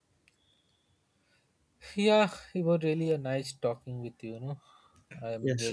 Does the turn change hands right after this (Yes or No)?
Yes